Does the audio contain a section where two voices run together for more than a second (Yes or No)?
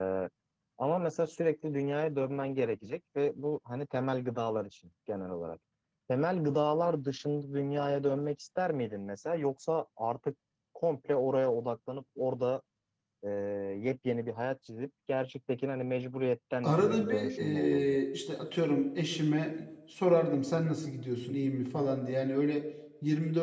Yes